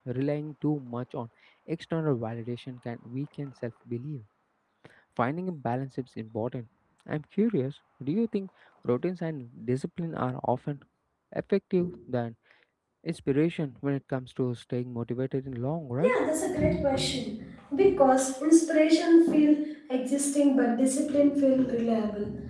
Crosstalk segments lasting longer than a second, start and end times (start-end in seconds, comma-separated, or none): none